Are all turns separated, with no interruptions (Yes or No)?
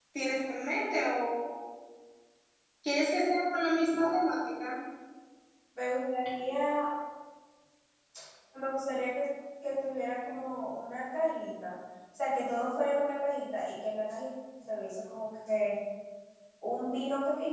Yes